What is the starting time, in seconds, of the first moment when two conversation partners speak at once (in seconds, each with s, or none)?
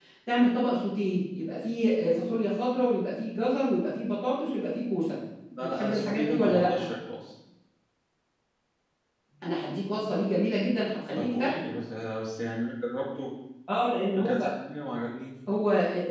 5.6 s